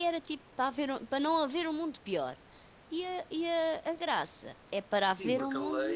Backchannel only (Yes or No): No